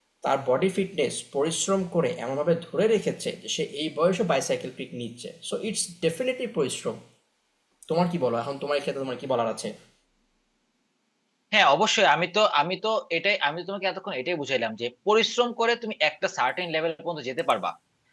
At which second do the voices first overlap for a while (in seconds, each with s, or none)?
none